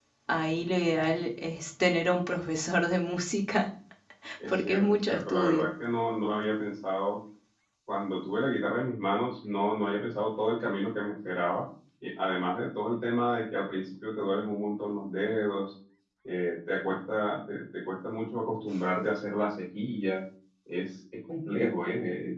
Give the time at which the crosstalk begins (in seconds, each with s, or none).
4.5 s